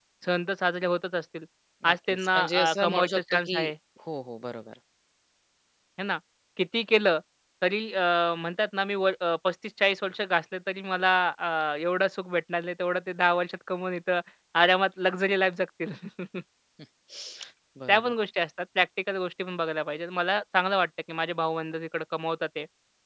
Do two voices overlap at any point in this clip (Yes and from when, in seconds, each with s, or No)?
Yes, from 1.9 s